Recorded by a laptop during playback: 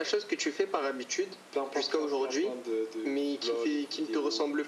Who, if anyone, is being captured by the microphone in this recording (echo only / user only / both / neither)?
echo only